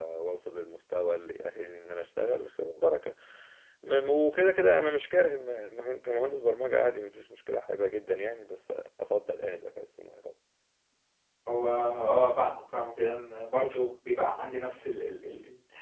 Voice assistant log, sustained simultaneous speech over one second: none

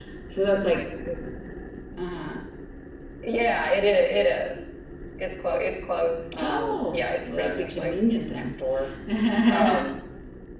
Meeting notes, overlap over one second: present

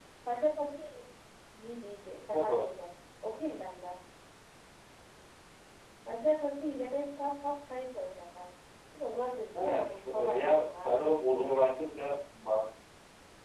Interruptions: present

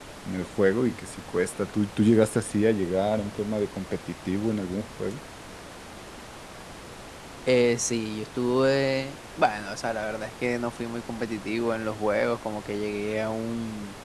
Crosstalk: none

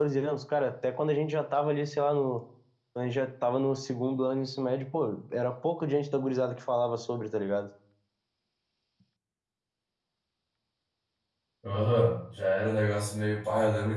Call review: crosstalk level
none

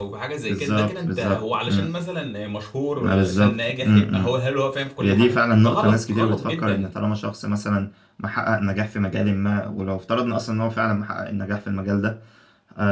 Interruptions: present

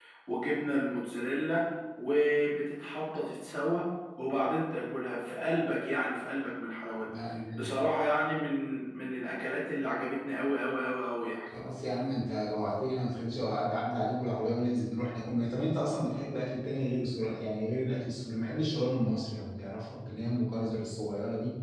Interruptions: none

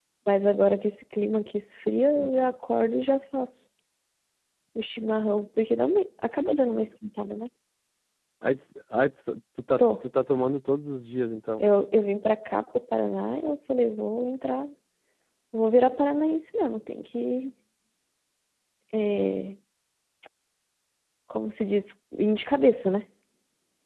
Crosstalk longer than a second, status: none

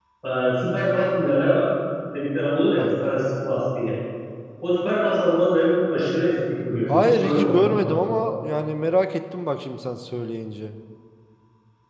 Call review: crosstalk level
present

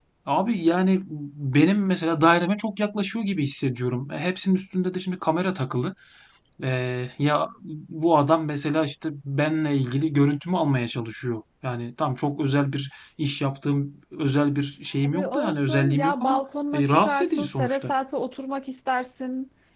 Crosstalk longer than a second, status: present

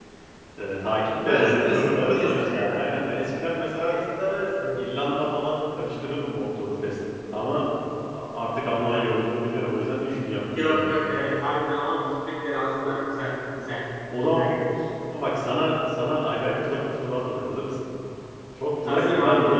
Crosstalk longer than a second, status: present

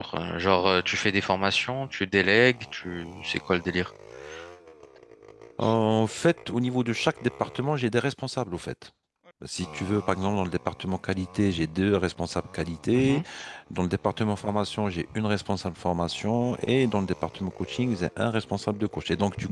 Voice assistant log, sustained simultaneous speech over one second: none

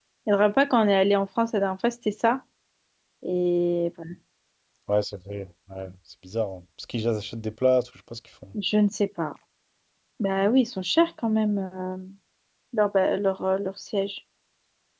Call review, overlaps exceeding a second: none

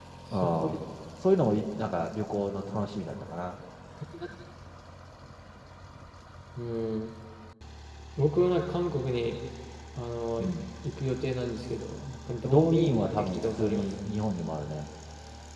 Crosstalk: present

